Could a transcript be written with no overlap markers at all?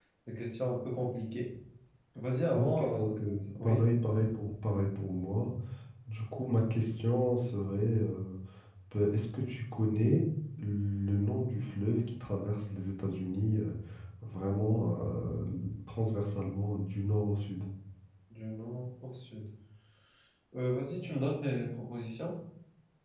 No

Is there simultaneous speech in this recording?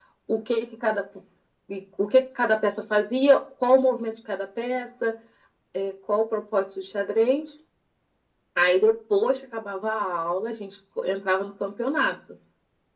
No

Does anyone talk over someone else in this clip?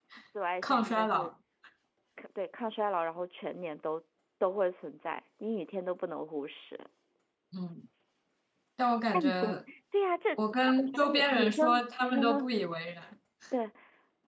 Yes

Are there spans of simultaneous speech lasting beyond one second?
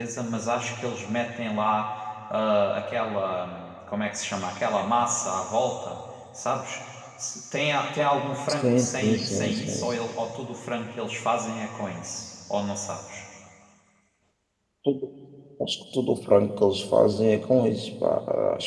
Yes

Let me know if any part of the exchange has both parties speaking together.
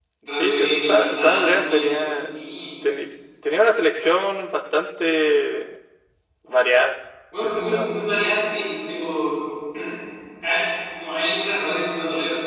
Yes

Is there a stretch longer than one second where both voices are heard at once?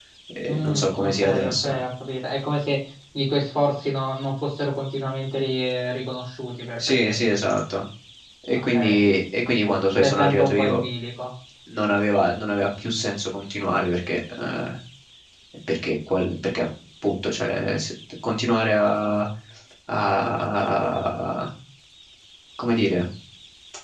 Yes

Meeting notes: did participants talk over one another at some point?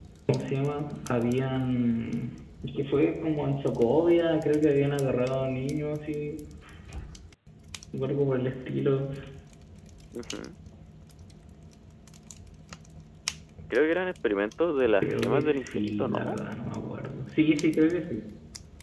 Yes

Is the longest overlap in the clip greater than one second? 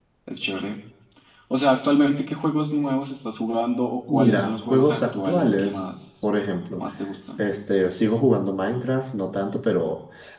Yes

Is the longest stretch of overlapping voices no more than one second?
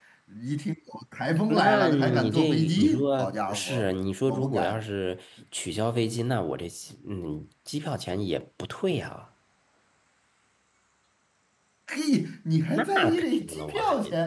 No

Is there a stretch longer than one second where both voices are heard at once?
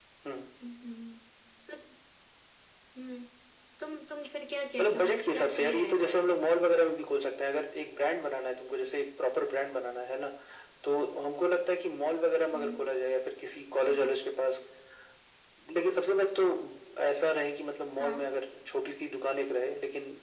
Yes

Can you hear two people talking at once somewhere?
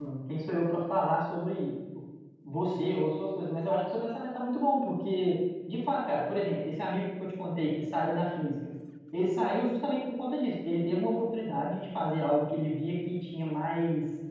No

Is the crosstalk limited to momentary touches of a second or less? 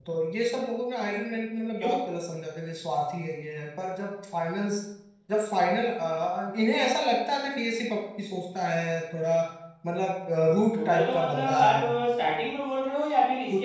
No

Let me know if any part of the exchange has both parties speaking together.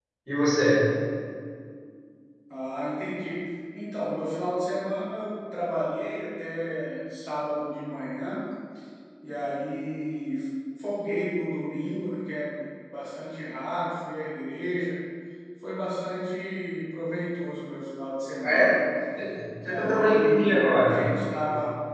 Yes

